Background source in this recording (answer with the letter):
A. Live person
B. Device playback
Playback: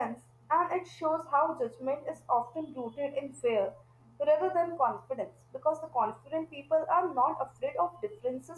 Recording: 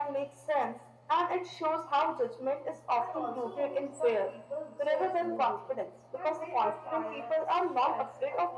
A